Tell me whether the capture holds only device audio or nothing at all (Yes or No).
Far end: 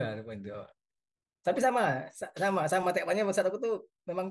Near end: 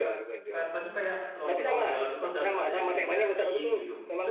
No